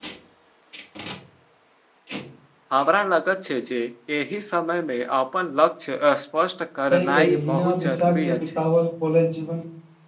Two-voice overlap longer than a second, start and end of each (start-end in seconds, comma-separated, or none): 6.9-8.6